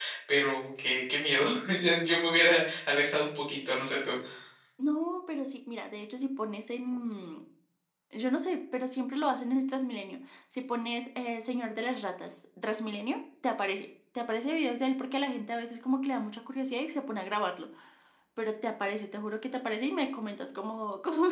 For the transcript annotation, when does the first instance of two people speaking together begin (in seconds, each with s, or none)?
none